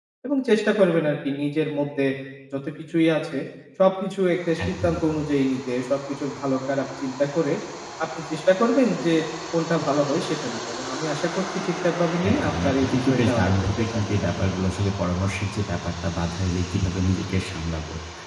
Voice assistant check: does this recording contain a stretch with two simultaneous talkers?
Yes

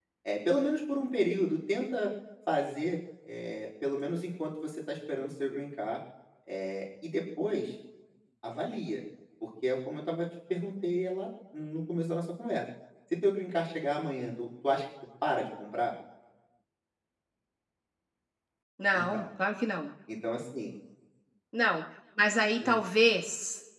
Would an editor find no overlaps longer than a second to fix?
Yes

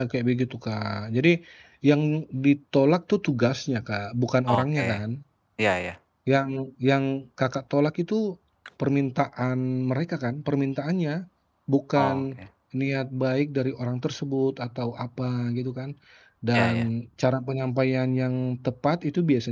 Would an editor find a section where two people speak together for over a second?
No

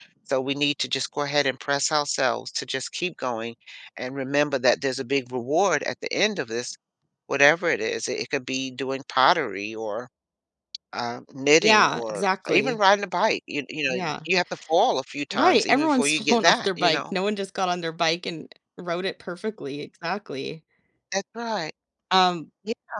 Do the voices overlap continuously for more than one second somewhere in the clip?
Yes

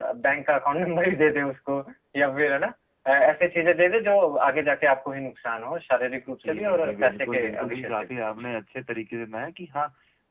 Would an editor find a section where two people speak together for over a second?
Yes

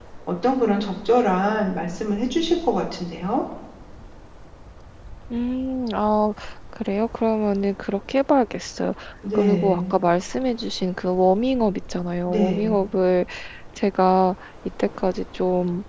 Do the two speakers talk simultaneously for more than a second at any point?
No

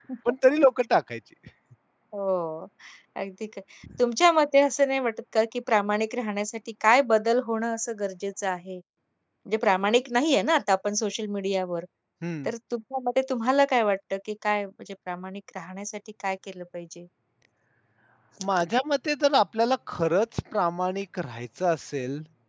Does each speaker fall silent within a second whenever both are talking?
Yes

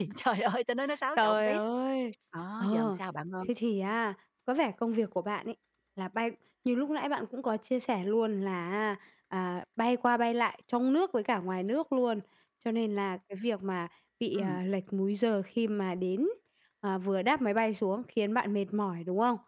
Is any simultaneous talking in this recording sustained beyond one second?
No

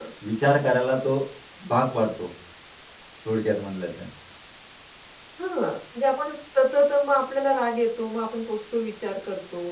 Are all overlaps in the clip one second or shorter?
Yes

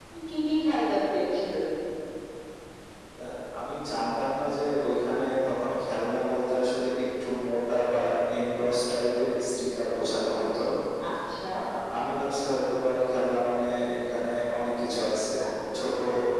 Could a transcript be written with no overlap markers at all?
Yes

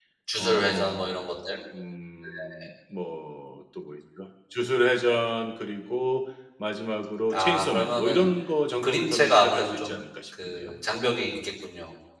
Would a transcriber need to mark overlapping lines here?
Yes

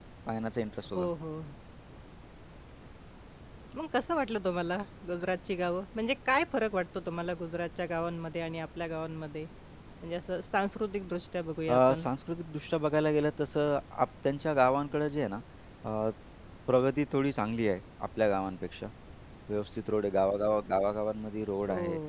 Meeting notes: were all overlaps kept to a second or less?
Yes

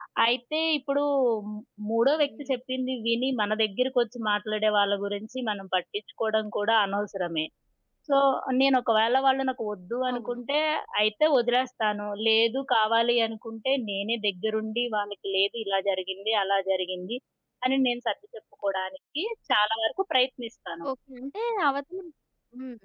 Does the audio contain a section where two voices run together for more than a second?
No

